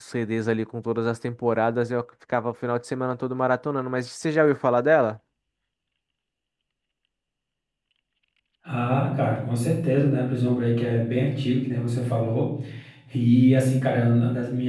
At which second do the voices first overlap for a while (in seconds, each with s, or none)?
none